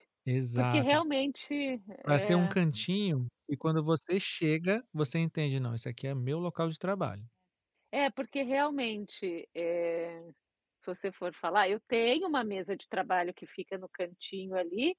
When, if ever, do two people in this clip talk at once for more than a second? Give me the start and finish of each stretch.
none

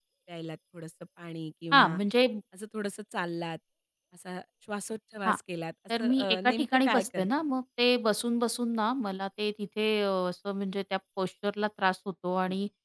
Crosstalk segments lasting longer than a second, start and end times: 6.0-7.3

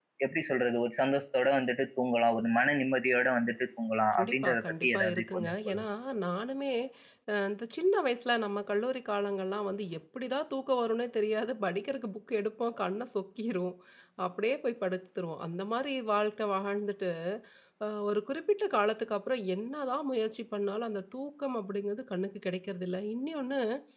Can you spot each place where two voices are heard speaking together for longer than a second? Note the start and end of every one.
4.2-5.8

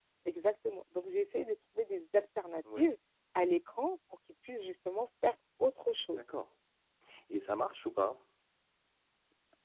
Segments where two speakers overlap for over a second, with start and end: none

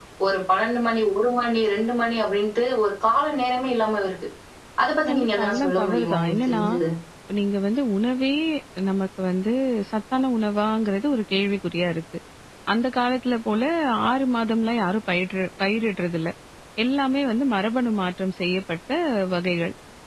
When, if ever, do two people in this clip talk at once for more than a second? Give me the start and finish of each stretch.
5.1-6.6

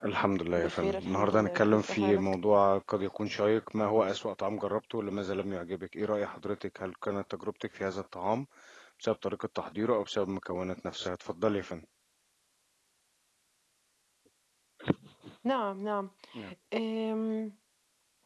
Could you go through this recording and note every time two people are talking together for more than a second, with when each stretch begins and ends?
0.6-2.2

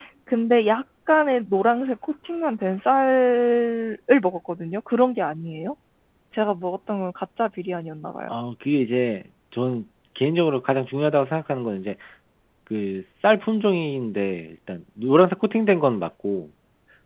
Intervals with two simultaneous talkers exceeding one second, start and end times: none

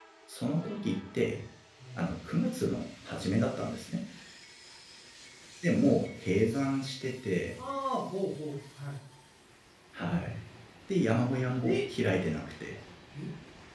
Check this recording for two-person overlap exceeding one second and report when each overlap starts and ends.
none

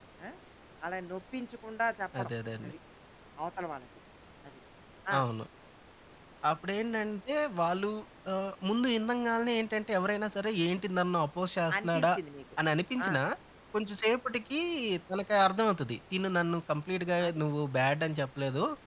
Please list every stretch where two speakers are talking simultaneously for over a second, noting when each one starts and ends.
none

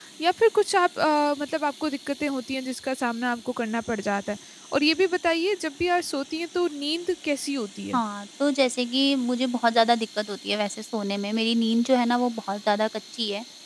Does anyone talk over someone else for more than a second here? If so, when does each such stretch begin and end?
none

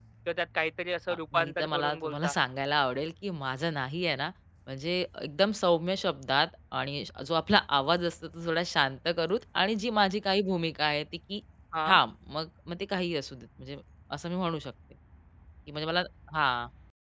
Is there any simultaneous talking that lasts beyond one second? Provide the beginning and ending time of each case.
1.1-2.3

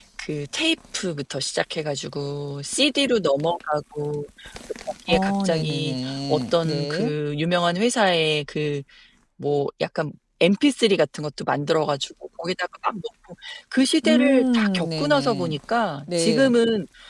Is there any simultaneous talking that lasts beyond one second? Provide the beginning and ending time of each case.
5.1-7.1, 14.0-15.6

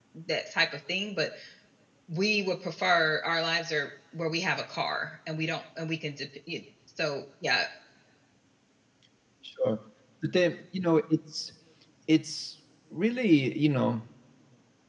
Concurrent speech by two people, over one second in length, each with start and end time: none

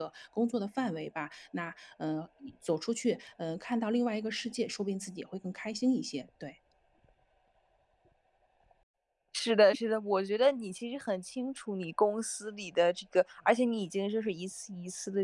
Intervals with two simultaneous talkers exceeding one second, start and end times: none

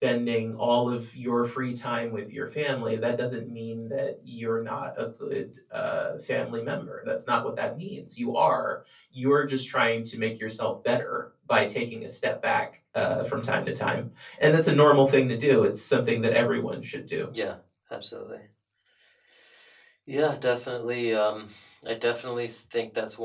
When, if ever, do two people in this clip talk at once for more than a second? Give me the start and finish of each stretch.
none

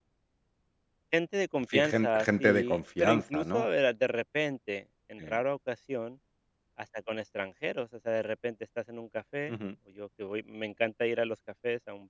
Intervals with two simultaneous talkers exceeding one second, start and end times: 1.7-3.6

